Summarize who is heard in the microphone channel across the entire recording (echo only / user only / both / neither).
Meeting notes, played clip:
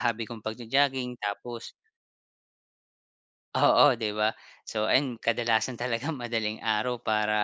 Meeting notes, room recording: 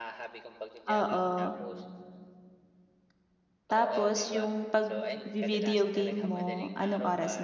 both